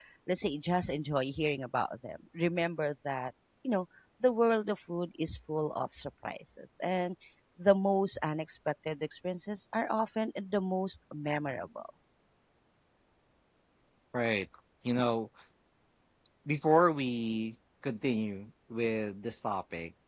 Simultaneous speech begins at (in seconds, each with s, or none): none